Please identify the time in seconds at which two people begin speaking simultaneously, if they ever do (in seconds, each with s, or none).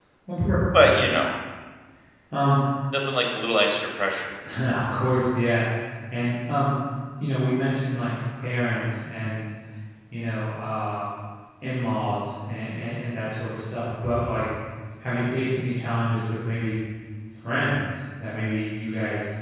none